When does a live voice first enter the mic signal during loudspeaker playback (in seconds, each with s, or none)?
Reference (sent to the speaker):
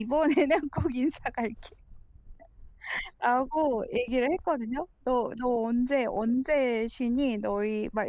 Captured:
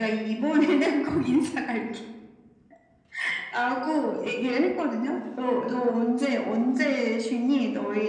none